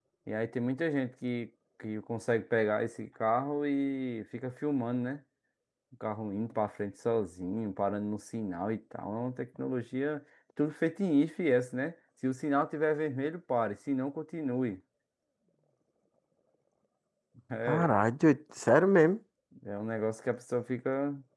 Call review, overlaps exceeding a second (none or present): none